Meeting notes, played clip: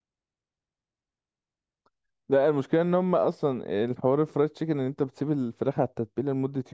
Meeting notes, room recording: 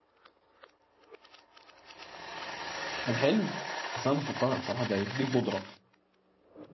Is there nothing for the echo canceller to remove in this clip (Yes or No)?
Yes